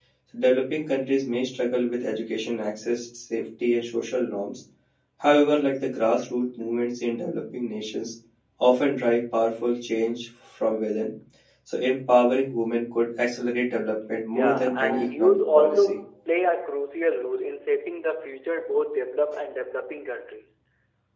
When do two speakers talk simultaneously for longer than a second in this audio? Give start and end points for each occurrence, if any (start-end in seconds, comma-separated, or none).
14.3-16.0